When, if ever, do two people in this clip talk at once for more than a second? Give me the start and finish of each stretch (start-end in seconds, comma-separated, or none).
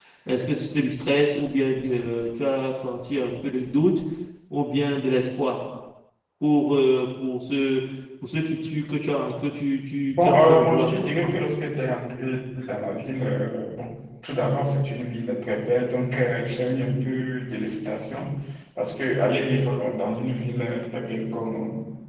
10.1-11.4